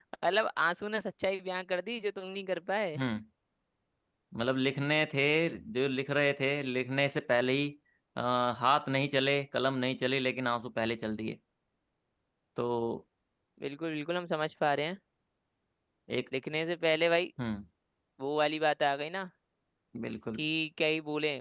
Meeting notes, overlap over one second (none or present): none